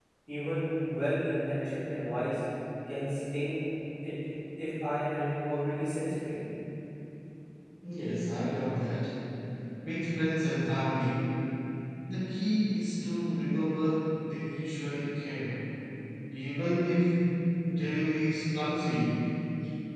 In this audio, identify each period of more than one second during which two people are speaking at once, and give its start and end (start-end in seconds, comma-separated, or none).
none